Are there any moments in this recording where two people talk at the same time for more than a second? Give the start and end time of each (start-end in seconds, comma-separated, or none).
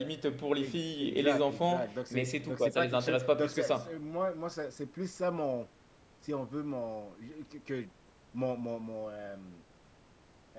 0.6-3.9